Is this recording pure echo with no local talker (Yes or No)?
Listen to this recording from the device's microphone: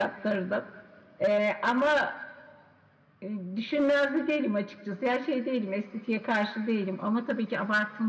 Yes